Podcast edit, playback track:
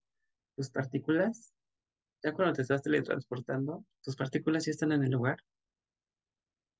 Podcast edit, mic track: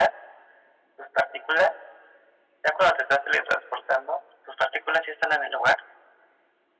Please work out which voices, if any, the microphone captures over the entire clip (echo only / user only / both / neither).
echo only